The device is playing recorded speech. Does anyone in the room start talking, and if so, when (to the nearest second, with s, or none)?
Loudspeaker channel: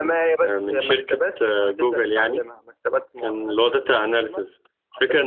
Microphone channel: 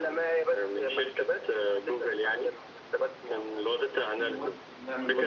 4 s